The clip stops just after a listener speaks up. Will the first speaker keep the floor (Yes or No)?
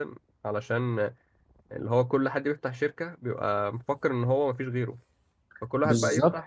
Yes